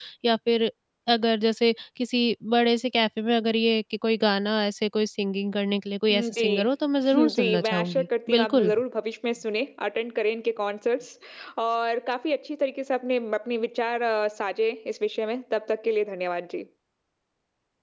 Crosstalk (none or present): present